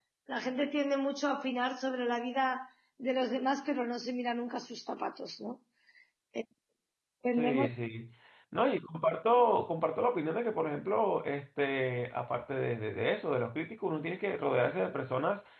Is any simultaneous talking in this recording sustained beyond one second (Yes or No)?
No